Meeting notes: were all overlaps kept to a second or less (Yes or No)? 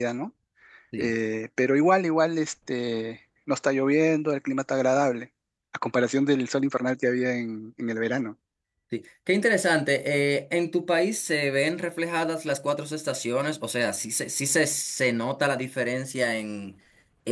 Yes